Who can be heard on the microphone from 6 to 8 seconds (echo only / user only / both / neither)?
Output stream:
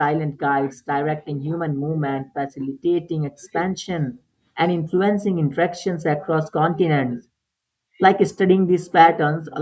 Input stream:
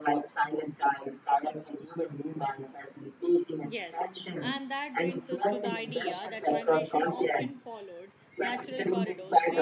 both